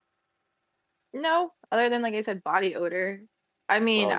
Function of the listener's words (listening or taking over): listening